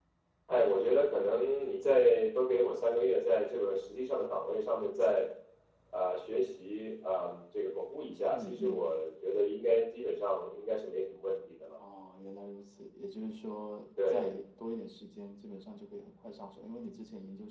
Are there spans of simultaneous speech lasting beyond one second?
No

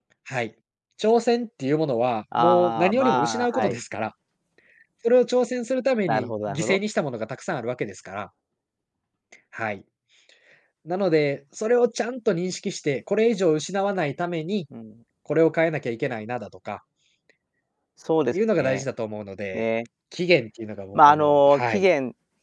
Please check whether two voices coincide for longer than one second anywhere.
Yes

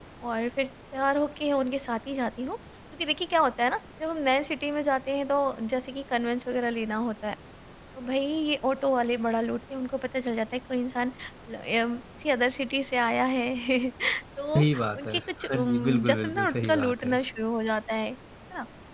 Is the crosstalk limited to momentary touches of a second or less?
No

